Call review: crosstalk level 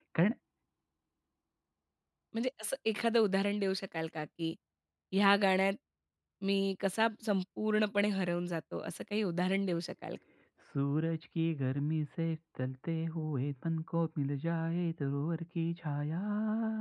none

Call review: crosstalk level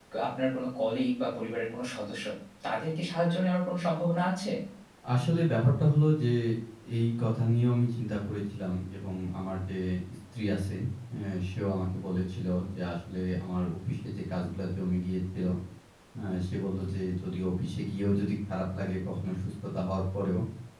none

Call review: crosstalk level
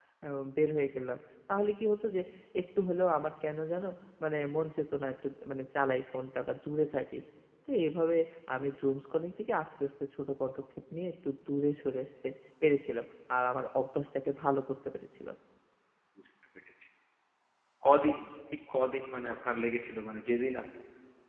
none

